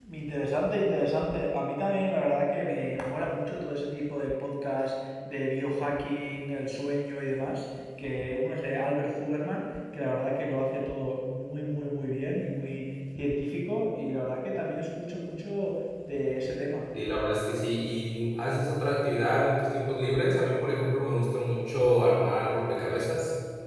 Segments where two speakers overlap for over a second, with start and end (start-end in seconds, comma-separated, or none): none